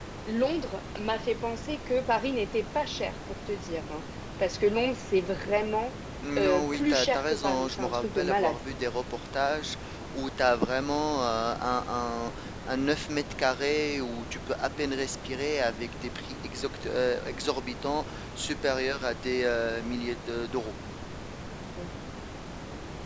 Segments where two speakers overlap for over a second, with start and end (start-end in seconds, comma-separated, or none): 6.4-8.6